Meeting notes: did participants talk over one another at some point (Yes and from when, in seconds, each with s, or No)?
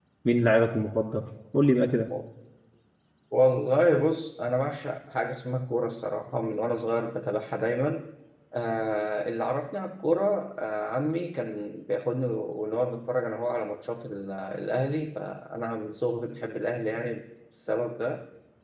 No